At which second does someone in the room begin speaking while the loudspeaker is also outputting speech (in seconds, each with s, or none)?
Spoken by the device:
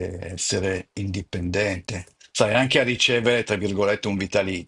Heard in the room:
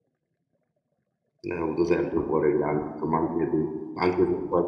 1.5 s